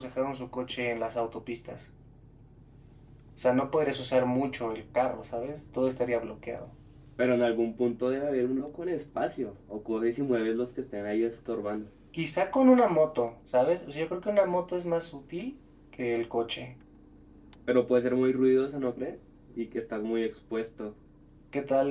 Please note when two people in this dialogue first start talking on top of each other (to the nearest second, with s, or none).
none